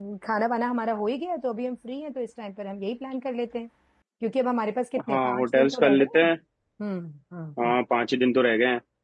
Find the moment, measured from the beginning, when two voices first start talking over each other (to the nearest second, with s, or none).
5 s